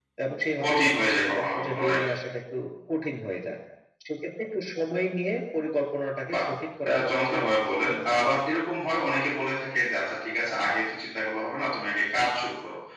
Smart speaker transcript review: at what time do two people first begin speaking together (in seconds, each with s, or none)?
0.6 s